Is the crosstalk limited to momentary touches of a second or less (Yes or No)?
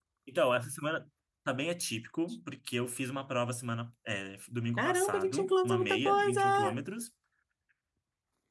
No